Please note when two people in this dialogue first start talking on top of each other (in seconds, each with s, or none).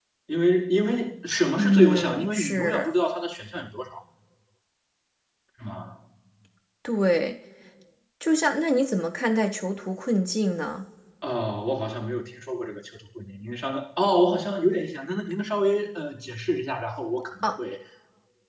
1.6 s